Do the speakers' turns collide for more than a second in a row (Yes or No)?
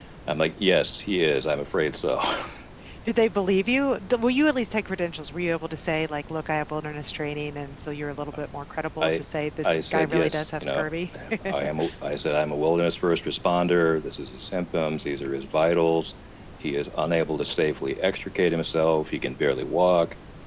Yes